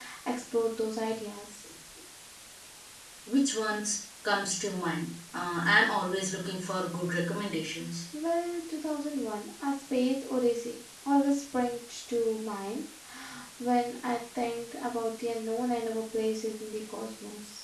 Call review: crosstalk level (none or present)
none